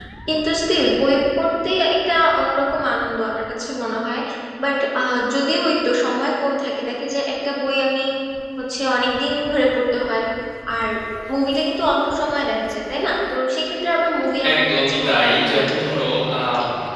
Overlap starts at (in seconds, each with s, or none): 14.4 s